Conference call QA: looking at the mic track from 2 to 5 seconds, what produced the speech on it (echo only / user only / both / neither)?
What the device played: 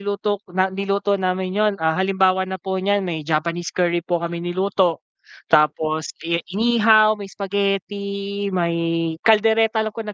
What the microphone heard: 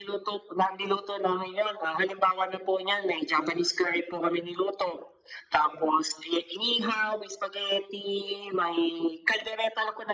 echo only